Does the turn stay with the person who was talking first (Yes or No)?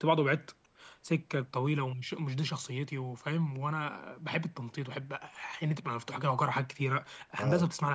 Yes